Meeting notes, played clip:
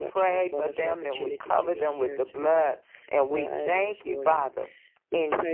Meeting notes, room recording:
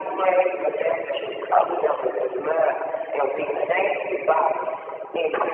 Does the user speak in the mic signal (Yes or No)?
No